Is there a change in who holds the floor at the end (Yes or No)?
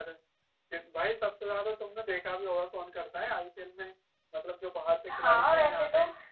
Yes